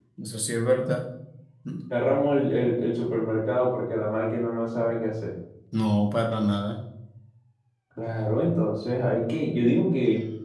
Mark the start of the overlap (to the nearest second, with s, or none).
none